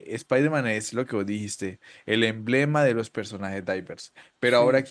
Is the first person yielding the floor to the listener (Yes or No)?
No